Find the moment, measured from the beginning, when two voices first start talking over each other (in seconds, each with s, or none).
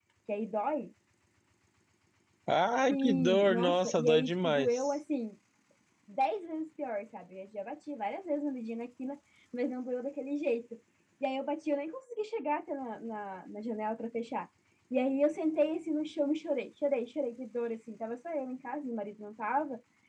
2.9 s